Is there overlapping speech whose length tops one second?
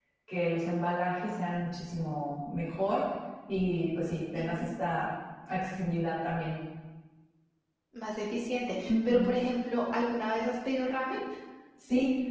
No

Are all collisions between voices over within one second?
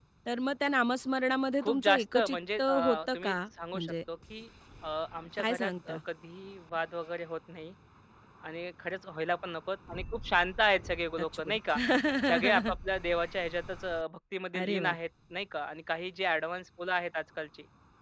No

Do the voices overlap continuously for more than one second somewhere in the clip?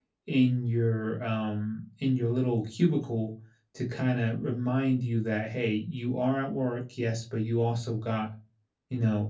No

